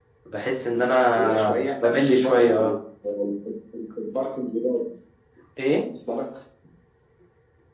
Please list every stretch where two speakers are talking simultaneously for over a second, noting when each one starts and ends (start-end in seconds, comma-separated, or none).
1.1-2.7